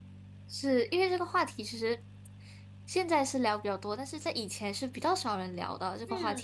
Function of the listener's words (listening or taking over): taking over